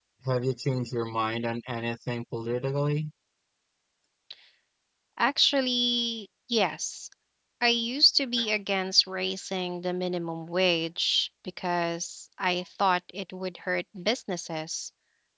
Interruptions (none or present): none